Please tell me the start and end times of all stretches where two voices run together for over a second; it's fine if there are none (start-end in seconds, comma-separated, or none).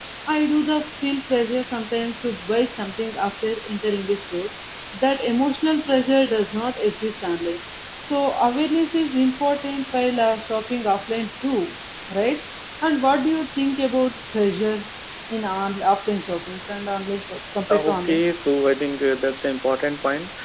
none